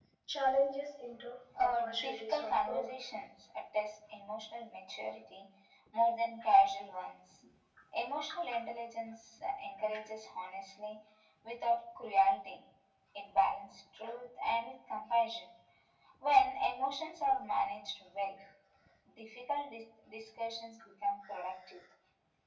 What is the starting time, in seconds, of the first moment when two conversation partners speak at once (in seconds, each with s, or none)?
1.6 s